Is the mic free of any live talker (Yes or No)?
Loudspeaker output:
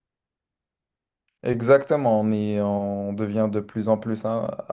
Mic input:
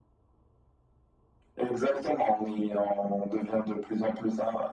Yes